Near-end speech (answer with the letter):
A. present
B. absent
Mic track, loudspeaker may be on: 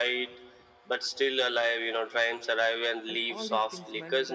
A